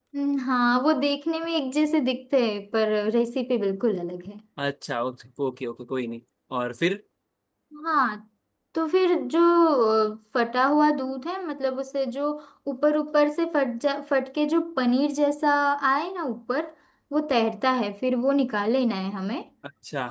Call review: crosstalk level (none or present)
none